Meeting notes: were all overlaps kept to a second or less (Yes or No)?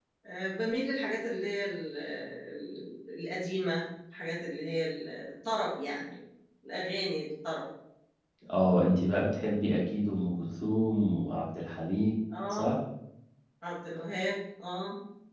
Yes